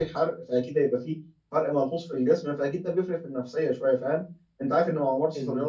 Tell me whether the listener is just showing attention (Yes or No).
Yes